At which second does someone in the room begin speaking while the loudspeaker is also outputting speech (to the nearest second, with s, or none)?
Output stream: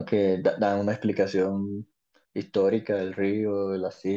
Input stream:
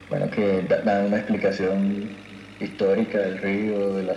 none